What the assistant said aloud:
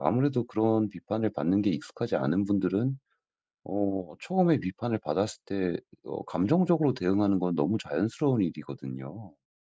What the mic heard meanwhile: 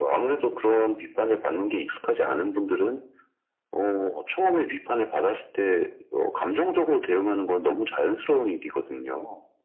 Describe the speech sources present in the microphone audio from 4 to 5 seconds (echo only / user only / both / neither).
echo only